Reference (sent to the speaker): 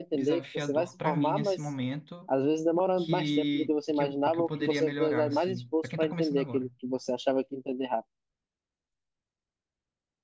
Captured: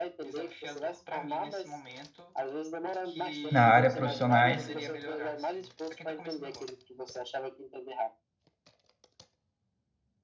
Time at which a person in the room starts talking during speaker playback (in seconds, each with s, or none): 3.5 s